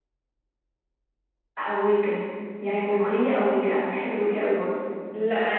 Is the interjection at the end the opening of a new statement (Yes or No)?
Yes